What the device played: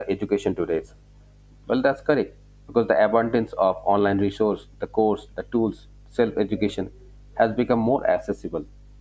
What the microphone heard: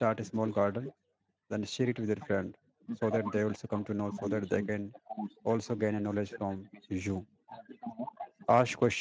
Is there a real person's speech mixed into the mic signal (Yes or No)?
Yes